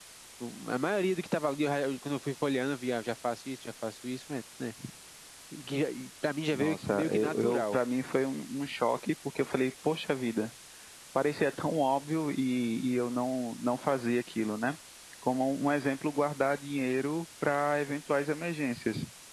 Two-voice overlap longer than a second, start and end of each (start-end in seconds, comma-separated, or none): 6.5-7.8